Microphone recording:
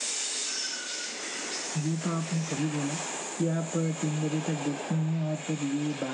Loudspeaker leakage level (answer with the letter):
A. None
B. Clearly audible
A